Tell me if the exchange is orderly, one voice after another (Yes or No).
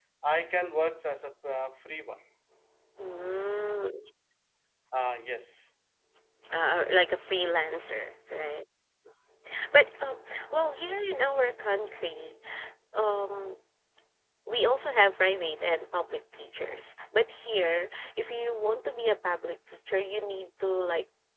Yes